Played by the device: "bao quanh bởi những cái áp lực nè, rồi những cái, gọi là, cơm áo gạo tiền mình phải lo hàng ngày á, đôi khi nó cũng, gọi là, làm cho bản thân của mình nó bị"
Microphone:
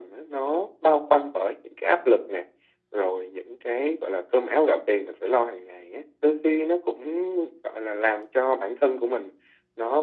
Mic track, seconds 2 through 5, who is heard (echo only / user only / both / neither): echo only